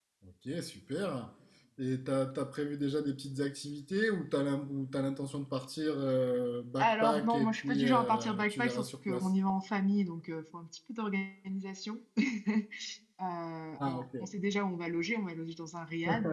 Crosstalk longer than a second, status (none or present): present